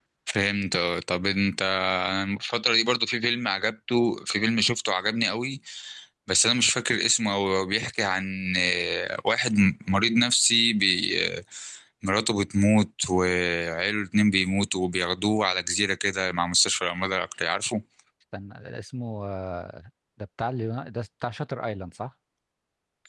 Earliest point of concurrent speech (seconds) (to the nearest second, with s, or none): none